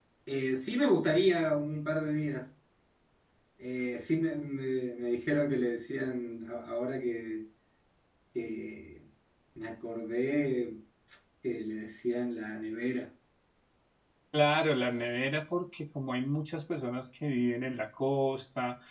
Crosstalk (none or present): none